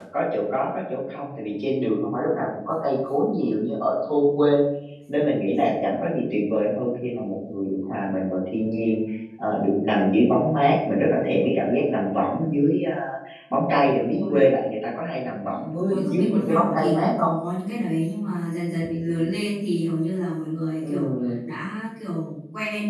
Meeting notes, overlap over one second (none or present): present